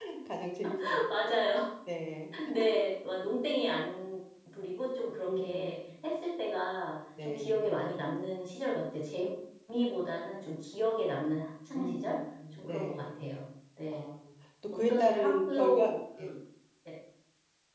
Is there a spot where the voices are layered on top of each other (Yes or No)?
Yes